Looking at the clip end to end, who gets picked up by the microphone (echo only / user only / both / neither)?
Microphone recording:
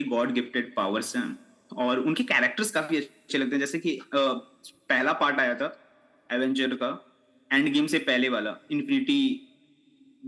echo only